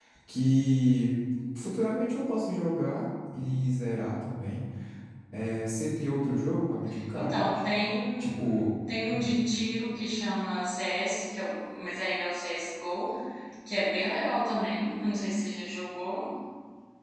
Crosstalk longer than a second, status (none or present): none